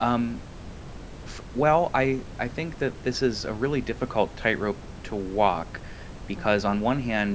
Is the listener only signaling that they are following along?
Yes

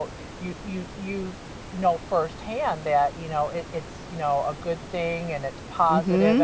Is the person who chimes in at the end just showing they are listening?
No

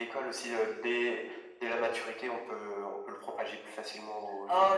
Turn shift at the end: Yes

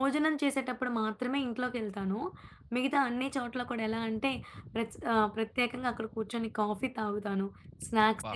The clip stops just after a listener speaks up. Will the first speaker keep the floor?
Yes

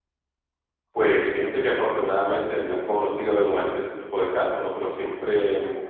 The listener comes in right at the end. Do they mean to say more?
No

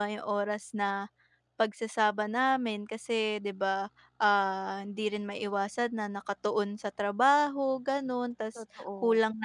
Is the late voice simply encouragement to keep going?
Yes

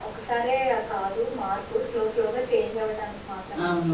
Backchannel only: No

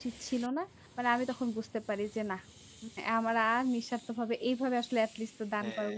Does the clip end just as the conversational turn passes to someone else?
Yes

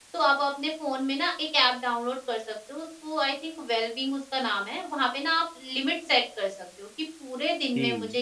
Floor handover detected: No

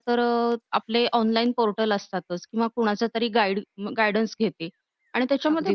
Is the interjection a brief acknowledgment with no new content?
Yes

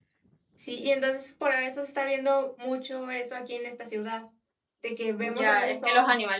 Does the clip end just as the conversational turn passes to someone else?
Yes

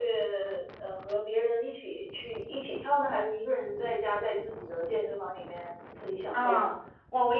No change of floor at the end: No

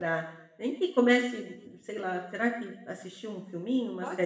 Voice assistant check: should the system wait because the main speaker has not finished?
No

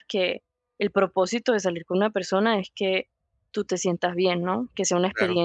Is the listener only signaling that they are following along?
Yes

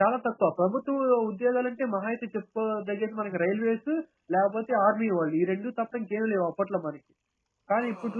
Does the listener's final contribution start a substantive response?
No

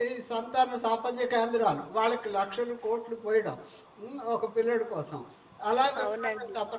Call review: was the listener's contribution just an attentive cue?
Yes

